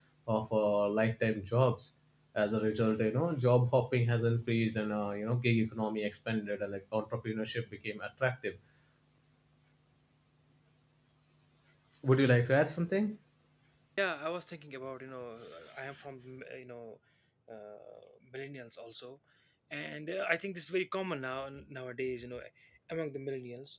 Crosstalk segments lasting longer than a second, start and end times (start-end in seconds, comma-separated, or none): none